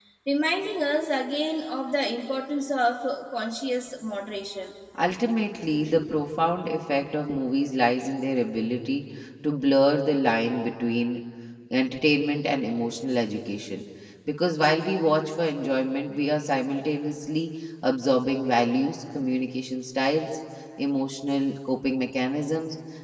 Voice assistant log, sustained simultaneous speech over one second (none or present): none